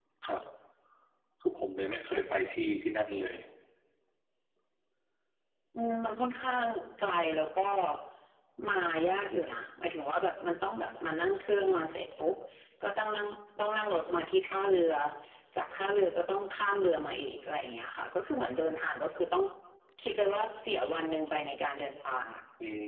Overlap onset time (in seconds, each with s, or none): none